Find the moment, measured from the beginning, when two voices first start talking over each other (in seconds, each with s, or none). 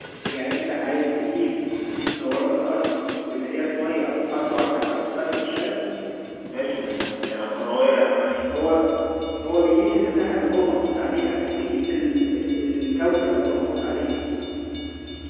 none